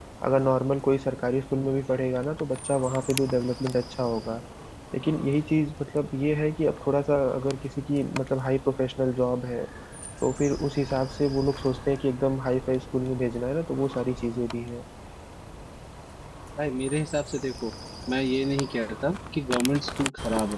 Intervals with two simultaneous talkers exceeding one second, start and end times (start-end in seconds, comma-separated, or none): none